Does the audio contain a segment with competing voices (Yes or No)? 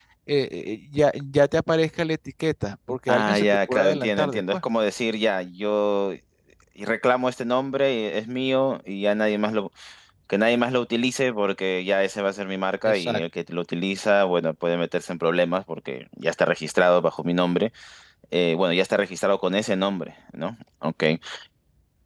Yes